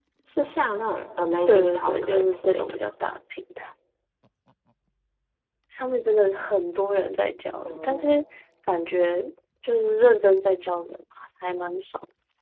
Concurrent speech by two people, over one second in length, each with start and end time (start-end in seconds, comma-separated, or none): 1.5-2.8